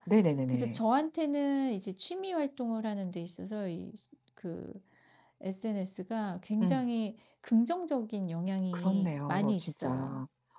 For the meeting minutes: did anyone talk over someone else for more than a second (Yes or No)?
Yes